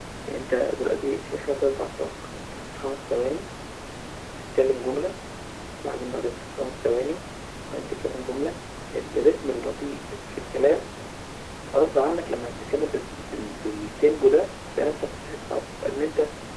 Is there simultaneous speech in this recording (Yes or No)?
No